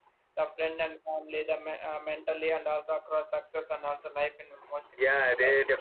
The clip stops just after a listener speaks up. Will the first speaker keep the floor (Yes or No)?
No